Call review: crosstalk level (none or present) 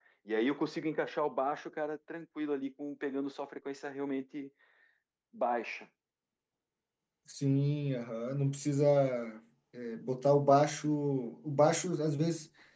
none